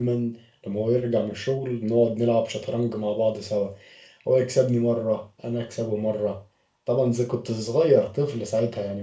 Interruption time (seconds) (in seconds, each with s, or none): none